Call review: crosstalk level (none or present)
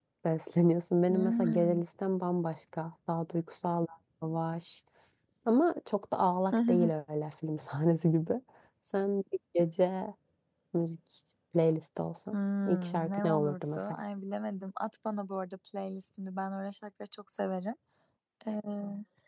present